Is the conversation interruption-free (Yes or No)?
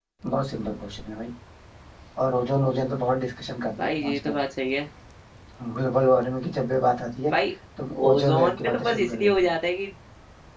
No